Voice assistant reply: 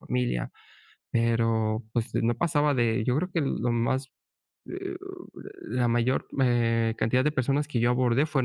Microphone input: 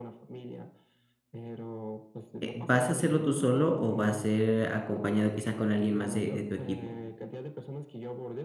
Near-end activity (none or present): present